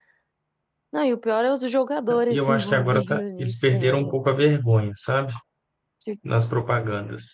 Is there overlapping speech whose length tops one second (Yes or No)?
Yes